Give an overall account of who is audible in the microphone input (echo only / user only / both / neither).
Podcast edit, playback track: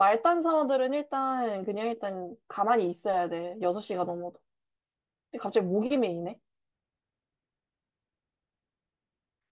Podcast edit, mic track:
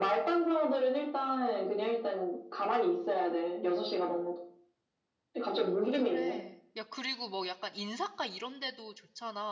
both